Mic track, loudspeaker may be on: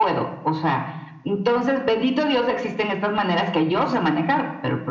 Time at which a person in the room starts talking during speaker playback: none

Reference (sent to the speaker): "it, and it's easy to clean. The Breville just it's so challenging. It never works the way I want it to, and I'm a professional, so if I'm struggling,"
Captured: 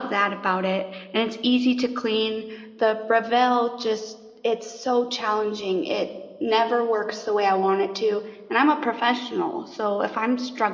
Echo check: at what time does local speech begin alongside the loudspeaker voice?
none

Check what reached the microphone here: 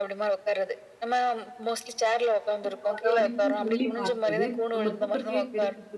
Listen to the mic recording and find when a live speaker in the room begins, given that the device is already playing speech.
3 s

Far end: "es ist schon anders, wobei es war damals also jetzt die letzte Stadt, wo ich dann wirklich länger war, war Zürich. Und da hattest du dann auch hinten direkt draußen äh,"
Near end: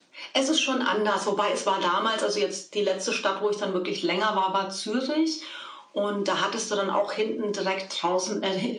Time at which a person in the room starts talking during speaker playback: none

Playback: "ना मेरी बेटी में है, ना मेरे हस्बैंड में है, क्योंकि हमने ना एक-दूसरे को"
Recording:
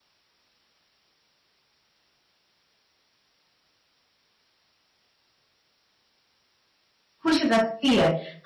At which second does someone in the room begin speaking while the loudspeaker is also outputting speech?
7 s

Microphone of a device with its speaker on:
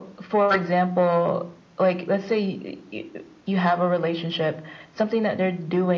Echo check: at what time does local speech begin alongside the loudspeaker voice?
none

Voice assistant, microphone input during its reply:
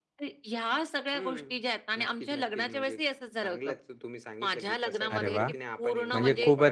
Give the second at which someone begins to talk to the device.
5 s

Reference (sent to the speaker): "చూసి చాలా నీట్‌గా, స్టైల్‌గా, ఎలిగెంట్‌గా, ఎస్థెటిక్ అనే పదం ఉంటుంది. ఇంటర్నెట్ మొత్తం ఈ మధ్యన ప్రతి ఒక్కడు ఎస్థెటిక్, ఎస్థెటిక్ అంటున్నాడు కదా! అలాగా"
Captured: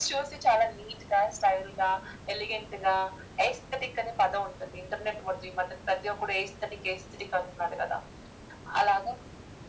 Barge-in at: none

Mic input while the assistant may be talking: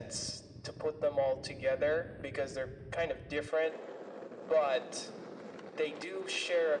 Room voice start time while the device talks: none

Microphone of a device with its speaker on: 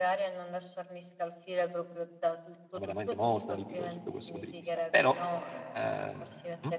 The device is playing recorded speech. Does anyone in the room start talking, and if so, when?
3 s

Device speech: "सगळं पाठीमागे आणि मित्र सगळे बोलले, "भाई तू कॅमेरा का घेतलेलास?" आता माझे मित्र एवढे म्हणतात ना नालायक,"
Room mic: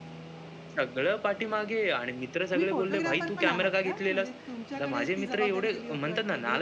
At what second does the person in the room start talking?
3 s

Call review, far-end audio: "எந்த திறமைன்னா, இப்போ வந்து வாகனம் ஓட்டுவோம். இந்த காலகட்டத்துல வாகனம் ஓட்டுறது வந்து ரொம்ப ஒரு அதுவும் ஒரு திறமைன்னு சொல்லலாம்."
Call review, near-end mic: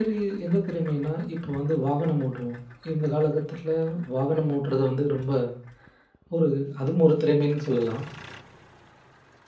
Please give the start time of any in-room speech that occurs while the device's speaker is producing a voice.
none

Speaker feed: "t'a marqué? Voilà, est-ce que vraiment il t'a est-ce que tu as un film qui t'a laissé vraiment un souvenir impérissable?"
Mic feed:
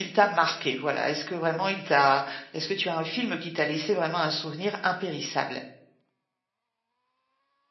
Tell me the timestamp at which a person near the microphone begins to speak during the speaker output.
none

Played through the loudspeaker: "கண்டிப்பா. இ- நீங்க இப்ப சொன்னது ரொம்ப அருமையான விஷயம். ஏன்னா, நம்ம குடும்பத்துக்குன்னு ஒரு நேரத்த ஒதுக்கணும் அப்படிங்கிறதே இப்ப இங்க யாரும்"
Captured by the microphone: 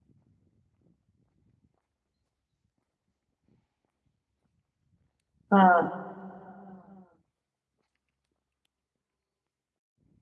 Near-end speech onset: 6 s

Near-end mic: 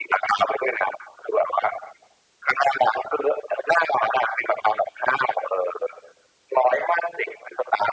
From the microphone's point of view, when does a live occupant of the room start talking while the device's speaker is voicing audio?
none

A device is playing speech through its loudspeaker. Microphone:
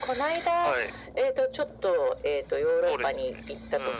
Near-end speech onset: none

